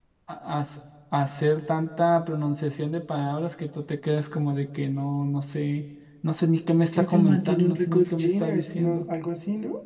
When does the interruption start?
6.9 s

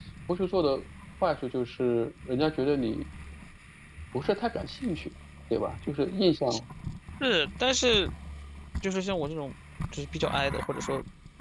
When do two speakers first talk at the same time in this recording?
none

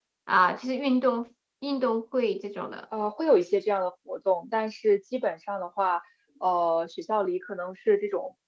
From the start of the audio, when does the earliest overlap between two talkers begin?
none

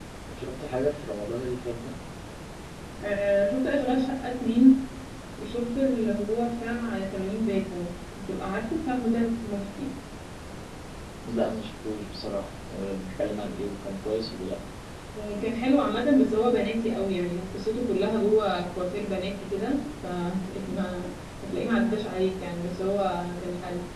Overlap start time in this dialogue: none

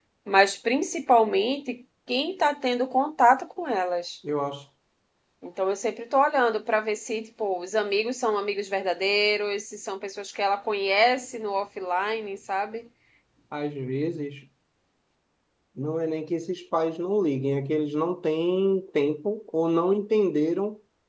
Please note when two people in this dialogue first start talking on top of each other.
none

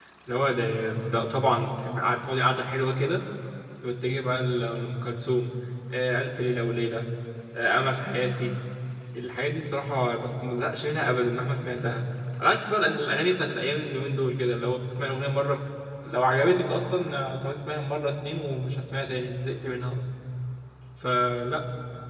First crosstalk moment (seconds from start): none

